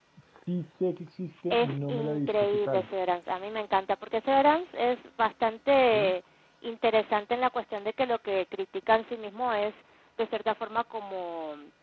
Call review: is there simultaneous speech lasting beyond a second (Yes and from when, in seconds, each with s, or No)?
Yes, from 1.5 s